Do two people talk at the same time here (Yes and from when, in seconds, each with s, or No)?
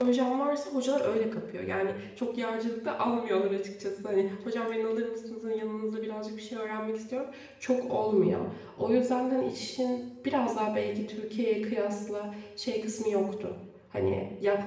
No